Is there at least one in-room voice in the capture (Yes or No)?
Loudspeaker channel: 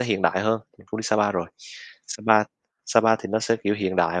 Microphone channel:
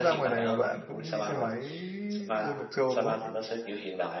Yes